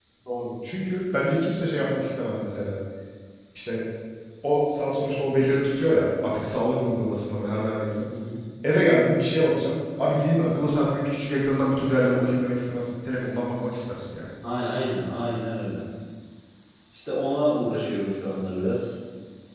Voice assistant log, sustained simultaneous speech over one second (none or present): none